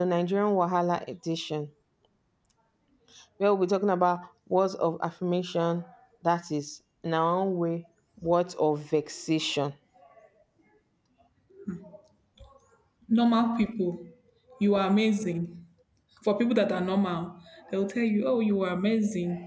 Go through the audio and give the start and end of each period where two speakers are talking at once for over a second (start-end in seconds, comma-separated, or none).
none